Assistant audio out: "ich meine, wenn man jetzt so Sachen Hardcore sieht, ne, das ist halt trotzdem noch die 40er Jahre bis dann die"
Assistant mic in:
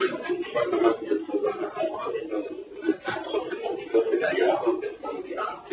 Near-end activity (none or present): none